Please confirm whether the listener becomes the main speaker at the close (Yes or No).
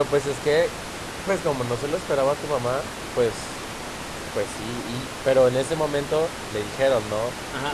Yes